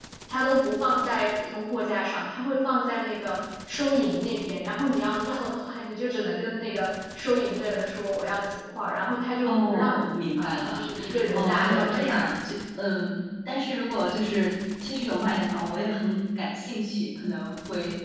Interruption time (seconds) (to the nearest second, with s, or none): 9 s